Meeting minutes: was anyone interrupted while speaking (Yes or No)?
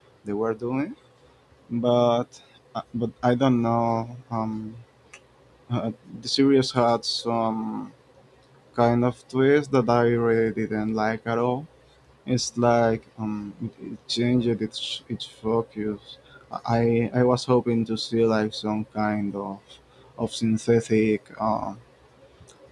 No